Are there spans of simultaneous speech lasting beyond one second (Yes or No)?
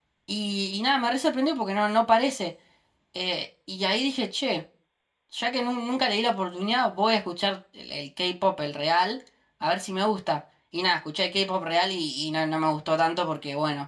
No